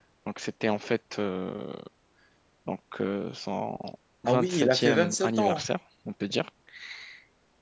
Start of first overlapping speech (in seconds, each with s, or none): 4.3 s